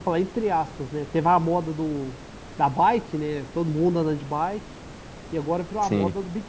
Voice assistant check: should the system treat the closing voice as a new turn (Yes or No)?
No